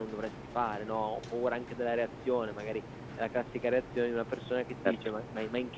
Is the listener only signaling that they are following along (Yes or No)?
Yes